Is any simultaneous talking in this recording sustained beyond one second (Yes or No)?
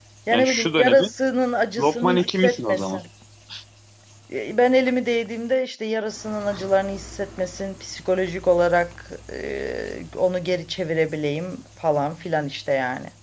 Yes